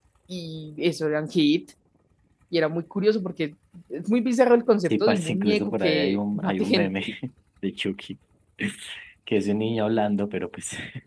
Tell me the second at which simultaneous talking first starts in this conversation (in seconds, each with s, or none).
4.8 s